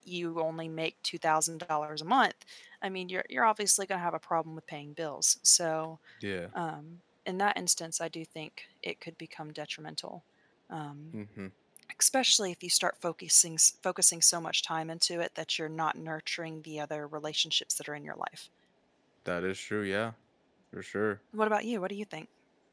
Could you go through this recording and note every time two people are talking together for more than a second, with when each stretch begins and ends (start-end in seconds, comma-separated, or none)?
none